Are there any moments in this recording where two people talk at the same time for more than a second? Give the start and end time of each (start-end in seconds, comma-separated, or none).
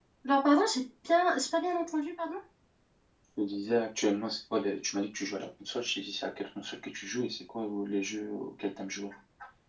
none